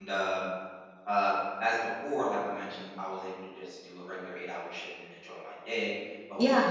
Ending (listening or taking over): listening